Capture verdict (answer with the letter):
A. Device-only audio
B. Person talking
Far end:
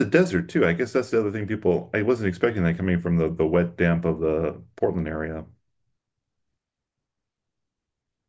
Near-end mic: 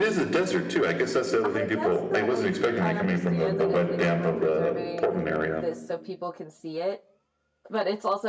B